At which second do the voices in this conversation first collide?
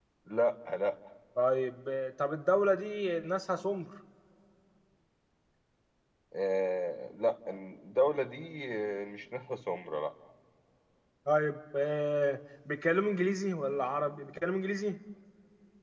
none

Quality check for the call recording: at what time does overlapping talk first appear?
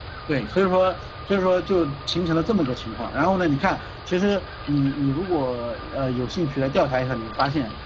none

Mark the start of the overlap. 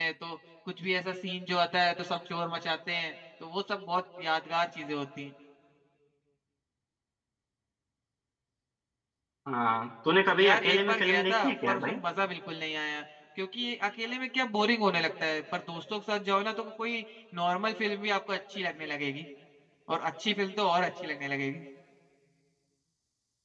10 s

